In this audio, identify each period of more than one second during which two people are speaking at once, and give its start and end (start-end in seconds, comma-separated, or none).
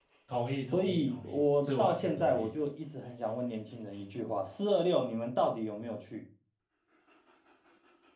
0.7-2.5